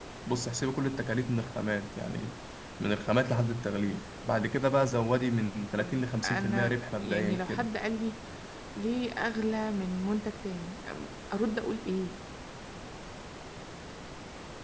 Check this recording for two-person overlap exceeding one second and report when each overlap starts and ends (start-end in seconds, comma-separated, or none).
5.8-7.7